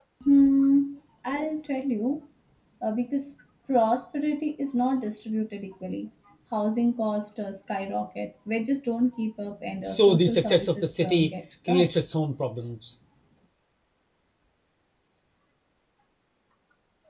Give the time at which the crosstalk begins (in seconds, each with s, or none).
9.8 s